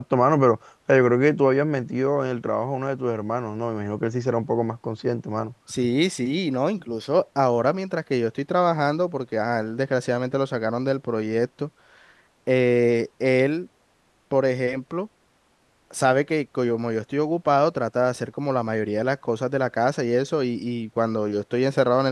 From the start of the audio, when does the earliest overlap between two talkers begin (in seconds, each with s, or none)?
none